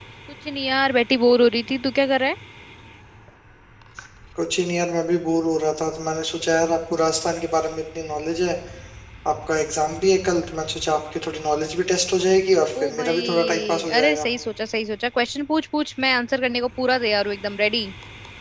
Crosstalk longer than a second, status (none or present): present